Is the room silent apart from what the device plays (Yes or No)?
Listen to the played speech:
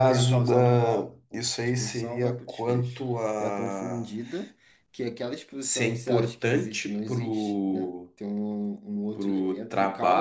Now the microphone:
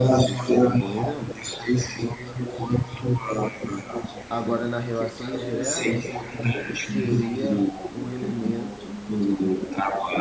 No